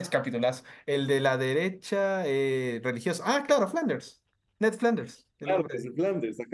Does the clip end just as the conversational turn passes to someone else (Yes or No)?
Yes